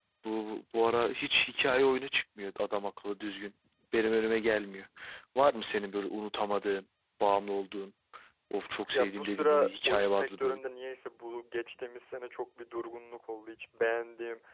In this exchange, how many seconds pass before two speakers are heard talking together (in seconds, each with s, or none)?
8.9 s